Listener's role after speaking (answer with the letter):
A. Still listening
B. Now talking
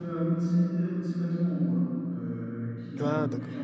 A